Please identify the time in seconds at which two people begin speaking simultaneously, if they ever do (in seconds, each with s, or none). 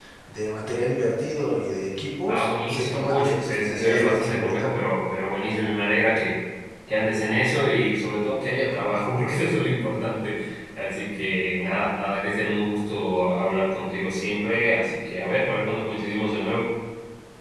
2.3 s